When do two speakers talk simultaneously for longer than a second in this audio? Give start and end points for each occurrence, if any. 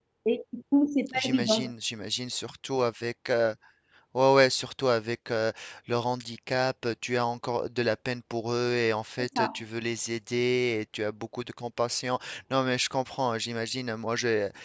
none

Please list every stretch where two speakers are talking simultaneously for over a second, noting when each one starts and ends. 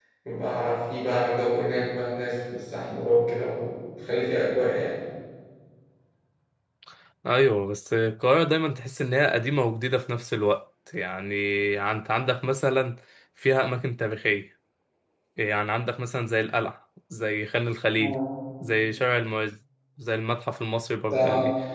none

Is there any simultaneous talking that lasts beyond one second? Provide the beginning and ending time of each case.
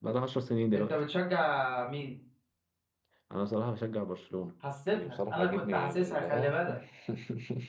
4.9-6.6

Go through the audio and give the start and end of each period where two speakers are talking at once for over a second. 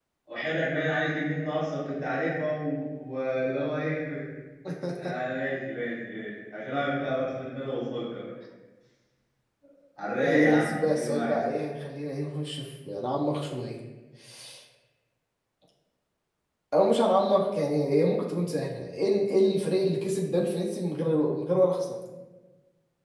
10.2-11.4

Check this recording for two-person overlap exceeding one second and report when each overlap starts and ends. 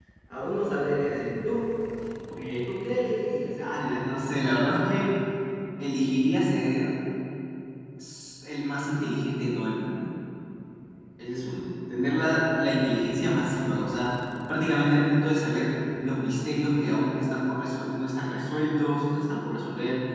none

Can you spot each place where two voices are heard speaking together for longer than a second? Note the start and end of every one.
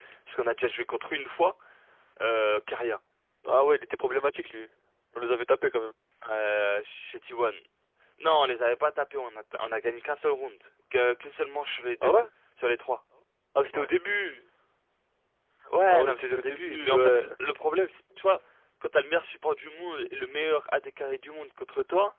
15.9-17.2

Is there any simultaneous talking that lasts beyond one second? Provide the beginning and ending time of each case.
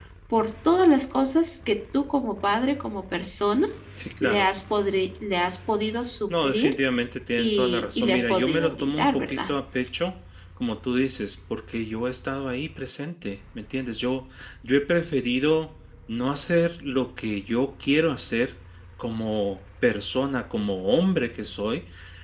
7.4-9.5

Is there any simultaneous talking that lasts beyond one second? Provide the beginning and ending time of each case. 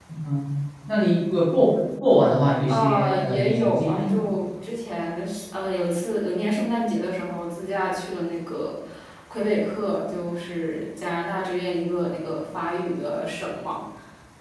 2.7-4.2

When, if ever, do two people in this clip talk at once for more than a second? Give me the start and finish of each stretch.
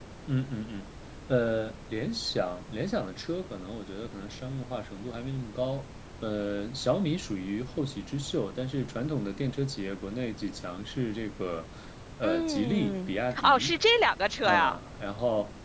12.2-13.8

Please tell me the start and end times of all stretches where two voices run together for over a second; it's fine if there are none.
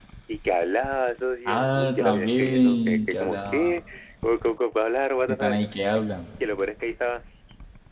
1.4-3.8

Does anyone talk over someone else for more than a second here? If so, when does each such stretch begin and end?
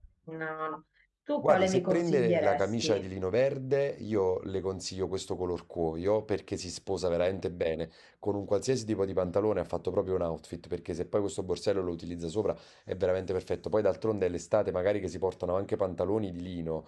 1.4-3.0

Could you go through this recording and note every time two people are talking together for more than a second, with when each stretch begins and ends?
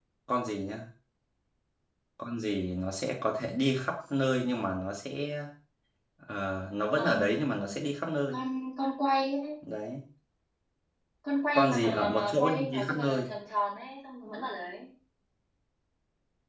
11.6-13.3

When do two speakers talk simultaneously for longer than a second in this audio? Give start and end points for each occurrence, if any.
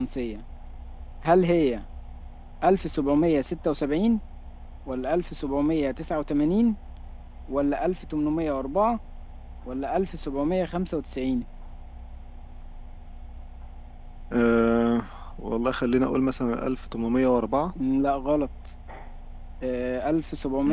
none

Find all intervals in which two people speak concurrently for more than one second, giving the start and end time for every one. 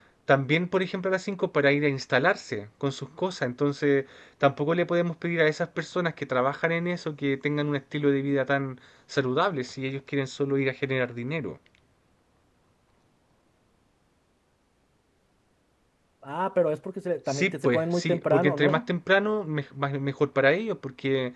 17.3-18.8

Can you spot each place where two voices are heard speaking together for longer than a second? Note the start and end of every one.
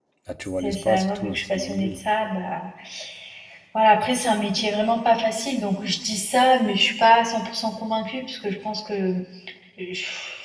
0.6-2.0

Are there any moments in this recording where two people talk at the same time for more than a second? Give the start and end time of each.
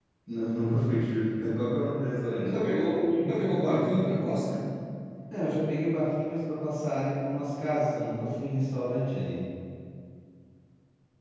none

